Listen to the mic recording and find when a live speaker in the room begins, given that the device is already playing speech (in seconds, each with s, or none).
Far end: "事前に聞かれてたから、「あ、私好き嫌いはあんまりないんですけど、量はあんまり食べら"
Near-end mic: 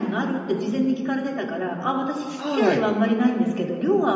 2.4 s